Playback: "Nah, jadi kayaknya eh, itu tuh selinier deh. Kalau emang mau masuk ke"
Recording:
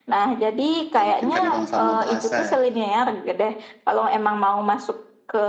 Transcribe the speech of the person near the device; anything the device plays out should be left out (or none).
Ya, mungkin karena sama-sama bahasa ya.